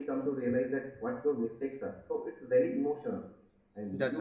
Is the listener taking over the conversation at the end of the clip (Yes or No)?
No